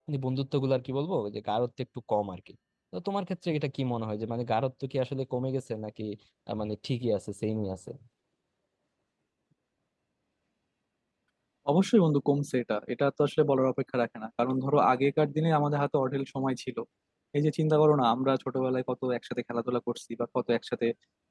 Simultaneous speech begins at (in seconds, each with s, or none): none